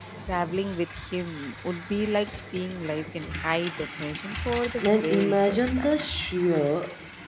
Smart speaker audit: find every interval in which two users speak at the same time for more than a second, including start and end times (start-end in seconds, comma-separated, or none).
4.8-6.2